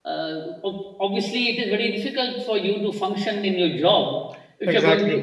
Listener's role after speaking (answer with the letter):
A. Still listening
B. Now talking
A